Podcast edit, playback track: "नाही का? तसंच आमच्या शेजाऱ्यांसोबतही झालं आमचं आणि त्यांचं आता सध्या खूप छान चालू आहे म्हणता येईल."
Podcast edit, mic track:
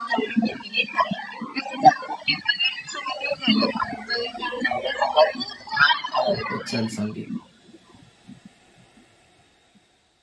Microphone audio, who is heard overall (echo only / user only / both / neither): both